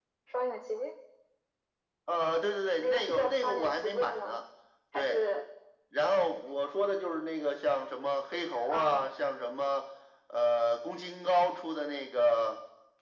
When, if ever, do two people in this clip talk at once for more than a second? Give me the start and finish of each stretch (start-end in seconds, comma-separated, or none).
2.8-4.4